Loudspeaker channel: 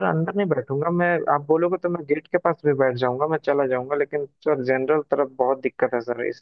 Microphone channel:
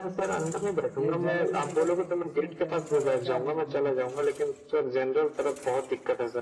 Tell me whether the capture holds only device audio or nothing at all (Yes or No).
No